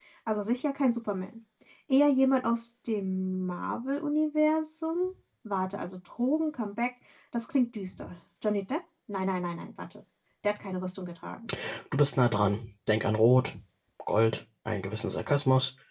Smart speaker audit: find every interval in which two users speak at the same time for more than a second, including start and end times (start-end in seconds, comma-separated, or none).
none